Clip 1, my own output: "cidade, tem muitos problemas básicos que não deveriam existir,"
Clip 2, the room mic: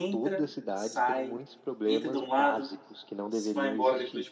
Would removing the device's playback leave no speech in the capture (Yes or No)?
No